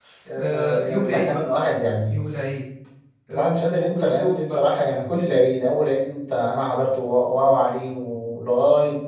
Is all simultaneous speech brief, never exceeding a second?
No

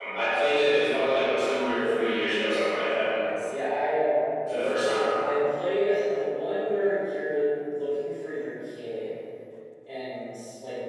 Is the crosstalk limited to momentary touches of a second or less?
Yes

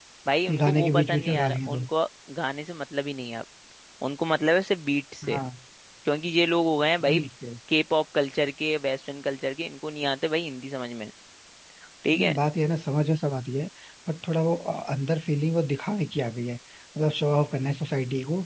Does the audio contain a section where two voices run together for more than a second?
Yes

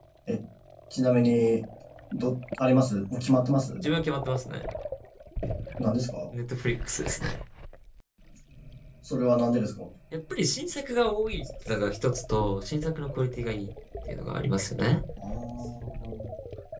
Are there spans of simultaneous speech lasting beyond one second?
No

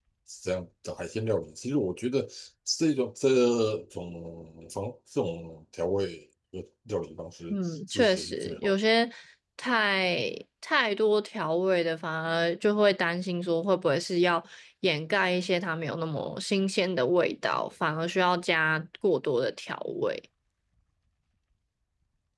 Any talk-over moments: Yes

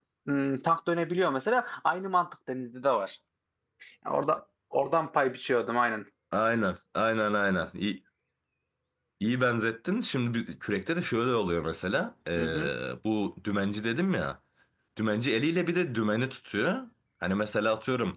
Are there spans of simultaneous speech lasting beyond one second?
No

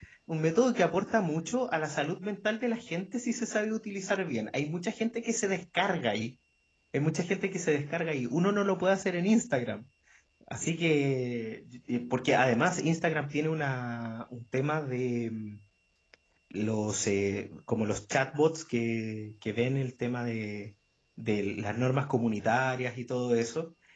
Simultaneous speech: No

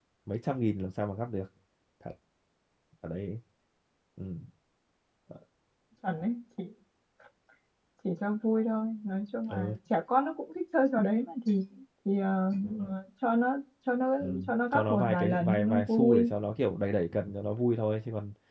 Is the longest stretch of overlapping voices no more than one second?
No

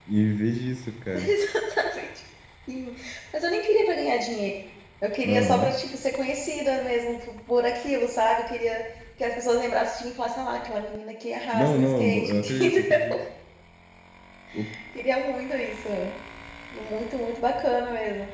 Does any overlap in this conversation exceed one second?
Yes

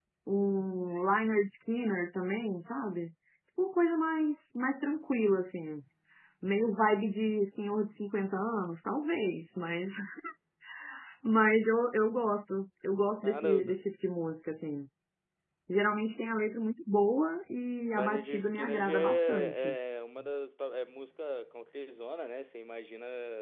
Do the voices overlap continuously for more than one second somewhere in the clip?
Yes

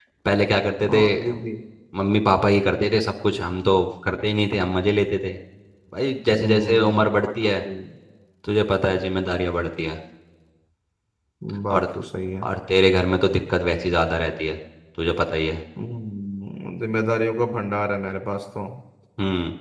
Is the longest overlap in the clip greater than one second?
Yes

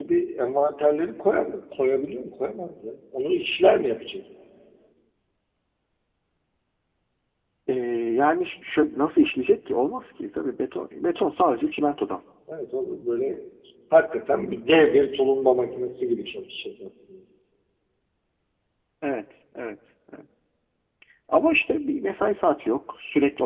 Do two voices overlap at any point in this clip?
No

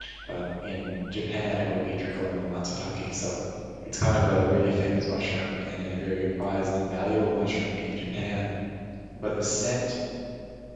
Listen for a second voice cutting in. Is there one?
No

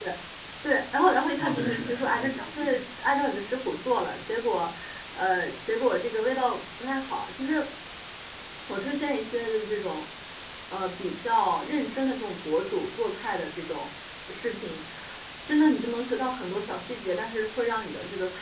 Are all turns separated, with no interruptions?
No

